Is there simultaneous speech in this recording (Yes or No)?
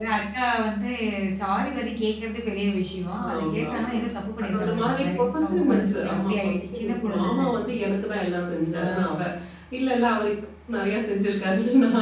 Yes